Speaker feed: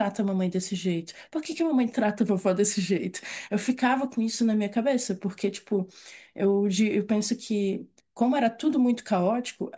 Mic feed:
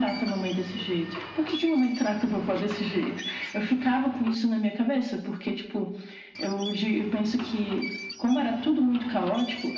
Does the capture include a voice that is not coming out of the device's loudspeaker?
No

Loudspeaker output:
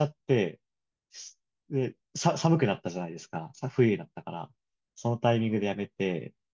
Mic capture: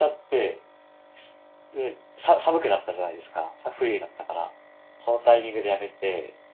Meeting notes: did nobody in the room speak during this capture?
Yes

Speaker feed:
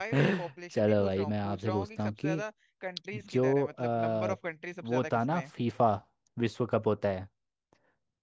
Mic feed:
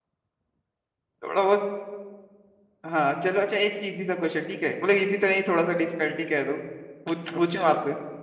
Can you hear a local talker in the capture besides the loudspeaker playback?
Yes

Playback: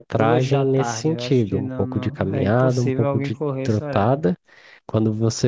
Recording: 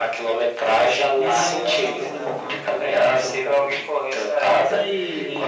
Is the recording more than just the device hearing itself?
Yes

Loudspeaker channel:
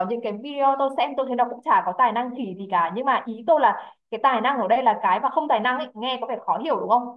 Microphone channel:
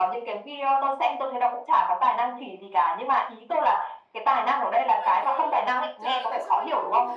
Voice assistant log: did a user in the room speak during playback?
Yes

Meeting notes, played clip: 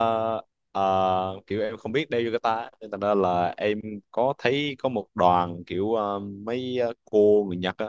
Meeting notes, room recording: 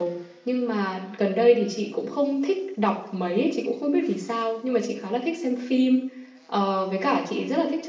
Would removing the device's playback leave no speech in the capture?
No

